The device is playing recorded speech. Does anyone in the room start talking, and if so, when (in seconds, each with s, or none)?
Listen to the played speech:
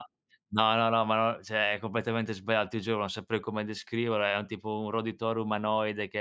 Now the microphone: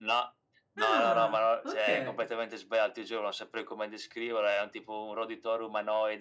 0.8 s